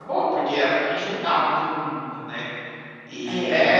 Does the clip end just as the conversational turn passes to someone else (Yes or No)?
No